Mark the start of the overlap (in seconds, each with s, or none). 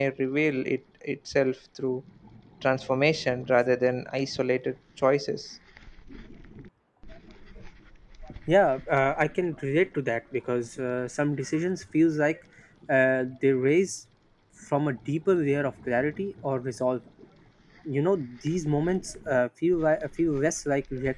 none